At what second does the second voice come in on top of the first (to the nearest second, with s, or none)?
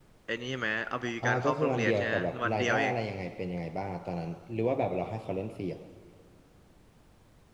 1 s